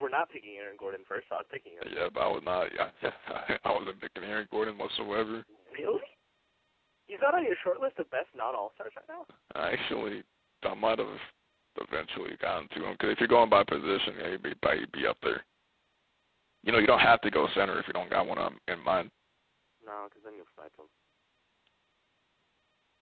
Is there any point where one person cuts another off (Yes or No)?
No